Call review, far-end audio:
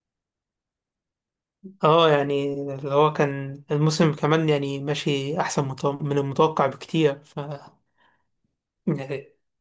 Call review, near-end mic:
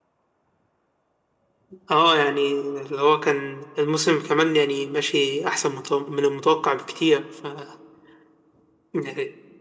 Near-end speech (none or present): none